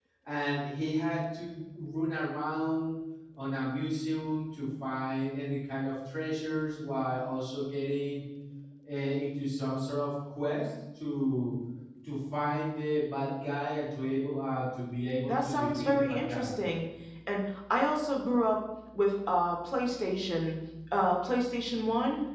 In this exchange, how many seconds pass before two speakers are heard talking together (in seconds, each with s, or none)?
15.3 s